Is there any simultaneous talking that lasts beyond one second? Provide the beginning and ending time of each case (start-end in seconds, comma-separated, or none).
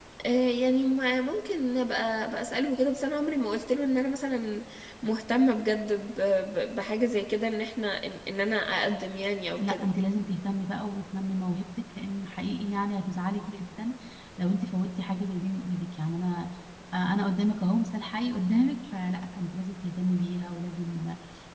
none